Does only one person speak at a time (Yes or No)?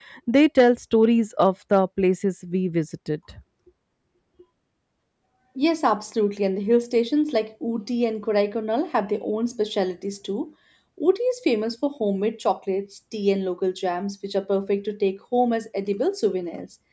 Yes